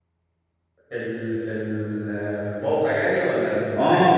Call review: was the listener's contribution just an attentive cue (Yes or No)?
No